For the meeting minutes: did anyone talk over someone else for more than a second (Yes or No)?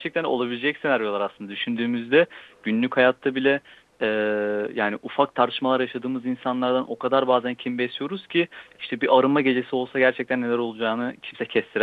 No